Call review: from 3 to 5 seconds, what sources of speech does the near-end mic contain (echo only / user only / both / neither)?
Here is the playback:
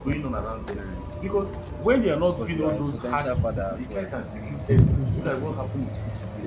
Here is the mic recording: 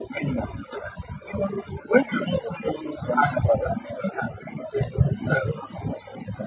echo only